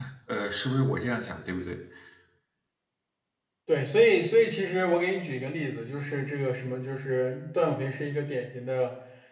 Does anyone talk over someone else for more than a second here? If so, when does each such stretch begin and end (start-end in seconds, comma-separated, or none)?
none